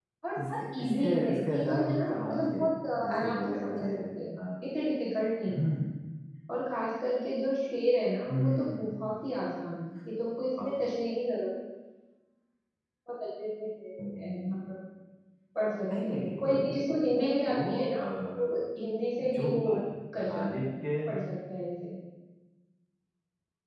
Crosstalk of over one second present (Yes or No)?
Yes